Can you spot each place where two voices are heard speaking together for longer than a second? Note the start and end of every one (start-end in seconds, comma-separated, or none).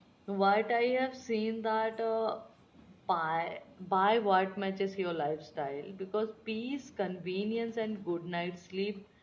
none